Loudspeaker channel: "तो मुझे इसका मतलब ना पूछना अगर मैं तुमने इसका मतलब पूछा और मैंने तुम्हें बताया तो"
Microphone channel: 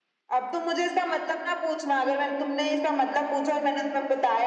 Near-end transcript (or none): none